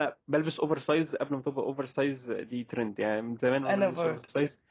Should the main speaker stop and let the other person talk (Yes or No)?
No